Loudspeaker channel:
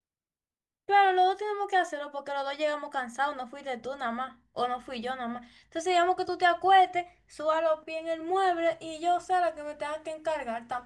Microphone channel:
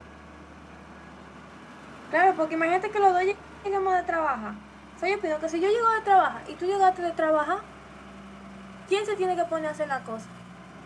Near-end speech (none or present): present